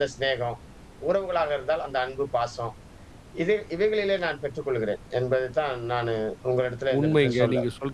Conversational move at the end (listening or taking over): taking over